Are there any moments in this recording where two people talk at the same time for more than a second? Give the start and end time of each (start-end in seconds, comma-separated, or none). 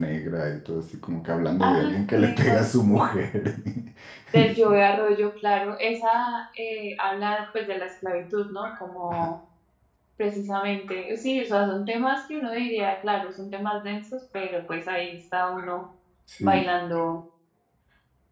1.7-3.0